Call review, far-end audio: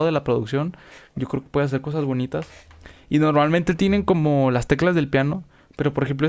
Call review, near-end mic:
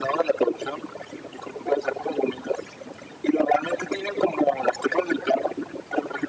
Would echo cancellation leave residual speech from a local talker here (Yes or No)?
No